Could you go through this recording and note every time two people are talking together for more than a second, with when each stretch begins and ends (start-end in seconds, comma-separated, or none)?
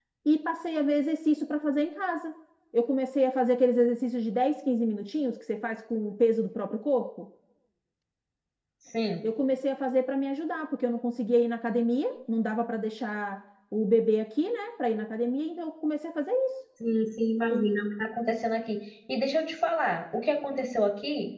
none